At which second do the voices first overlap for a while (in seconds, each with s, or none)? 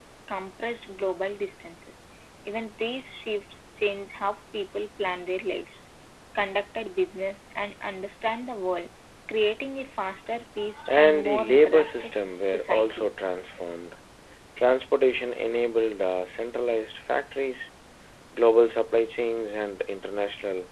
10.9 s